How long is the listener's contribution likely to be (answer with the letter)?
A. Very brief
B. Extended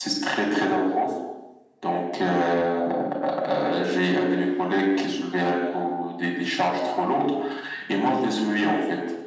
A